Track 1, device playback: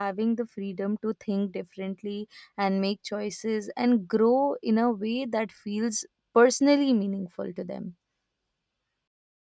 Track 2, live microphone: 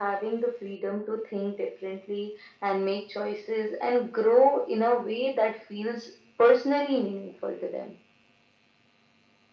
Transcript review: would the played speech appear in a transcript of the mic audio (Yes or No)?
Yes